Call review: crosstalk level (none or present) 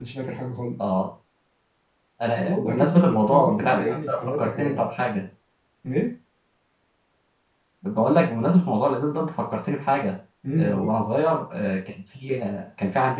present